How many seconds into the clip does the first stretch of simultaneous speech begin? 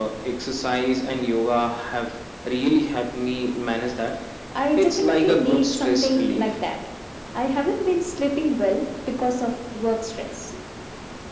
5 s

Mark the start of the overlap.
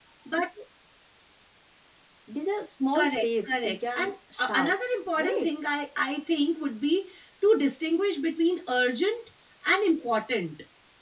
3 s

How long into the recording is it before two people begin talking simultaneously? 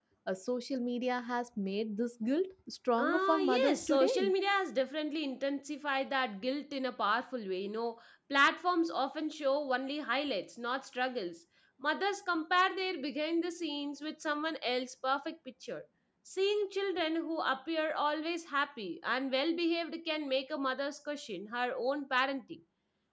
3 s

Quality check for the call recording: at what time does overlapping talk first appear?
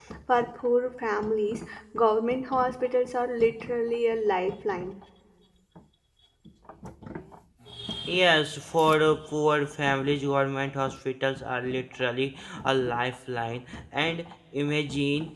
none

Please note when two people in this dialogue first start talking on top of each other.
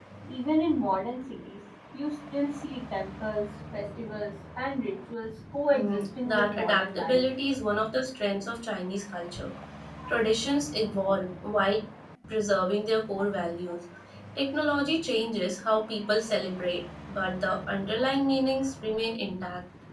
6 s

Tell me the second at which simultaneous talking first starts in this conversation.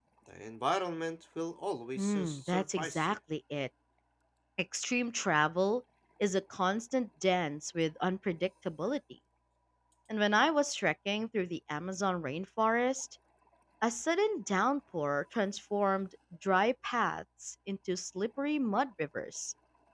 2 s

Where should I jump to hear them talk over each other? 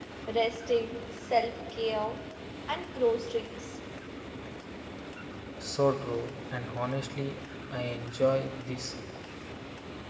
none

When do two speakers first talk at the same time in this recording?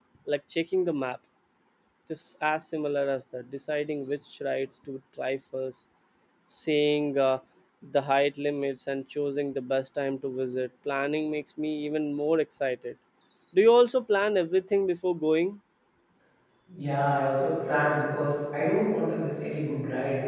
none

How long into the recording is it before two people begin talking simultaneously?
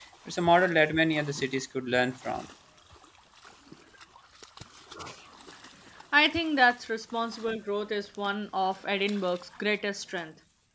none

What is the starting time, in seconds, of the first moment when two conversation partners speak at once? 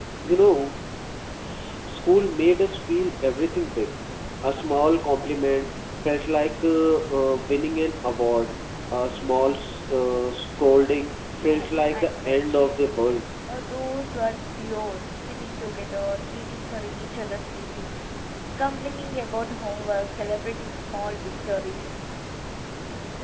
11 s

